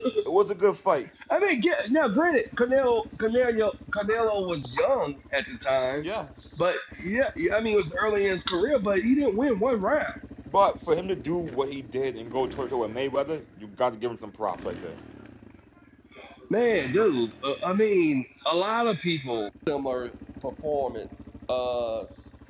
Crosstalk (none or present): none